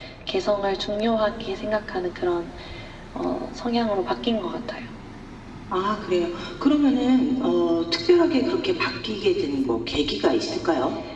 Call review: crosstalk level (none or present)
none